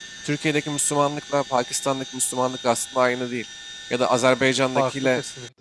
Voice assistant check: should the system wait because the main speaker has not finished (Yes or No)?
Yes